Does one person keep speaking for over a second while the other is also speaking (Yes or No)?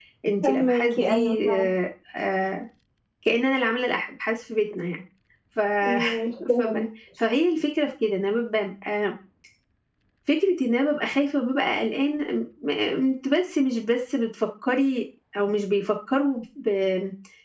Yes